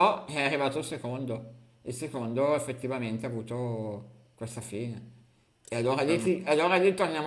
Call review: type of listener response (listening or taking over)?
listening